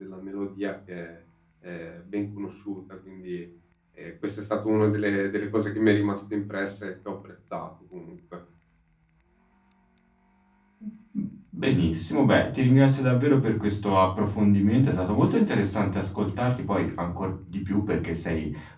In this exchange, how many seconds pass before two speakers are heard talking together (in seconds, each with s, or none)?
none